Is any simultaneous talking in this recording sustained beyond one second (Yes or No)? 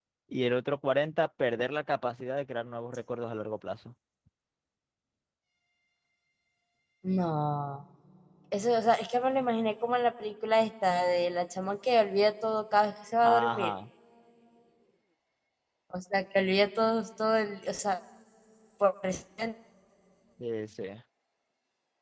No